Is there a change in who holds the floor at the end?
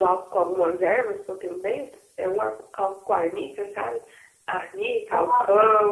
No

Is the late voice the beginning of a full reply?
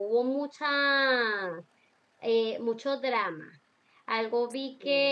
No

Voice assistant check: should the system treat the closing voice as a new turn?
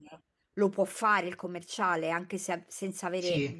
Yes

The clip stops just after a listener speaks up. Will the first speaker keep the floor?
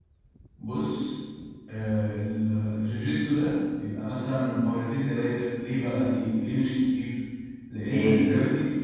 Yes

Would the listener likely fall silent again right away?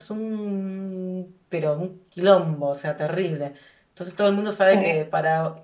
Yes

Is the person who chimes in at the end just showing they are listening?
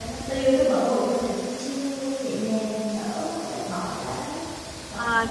No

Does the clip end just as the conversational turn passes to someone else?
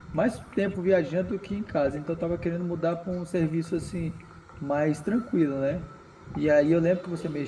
No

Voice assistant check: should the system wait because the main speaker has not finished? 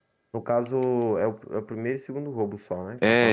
No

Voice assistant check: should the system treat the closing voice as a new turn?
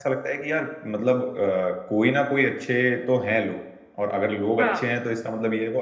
No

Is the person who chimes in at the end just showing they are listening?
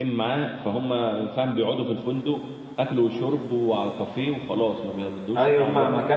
No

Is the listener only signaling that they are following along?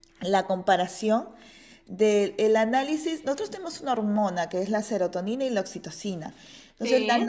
Yes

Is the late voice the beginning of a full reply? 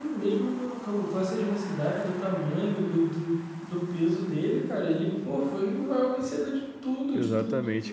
Yes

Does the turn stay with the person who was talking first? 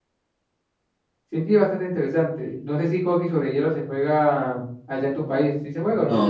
No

